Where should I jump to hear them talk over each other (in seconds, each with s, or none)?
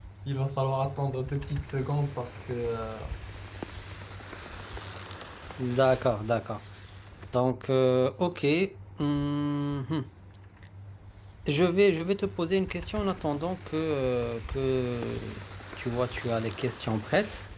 none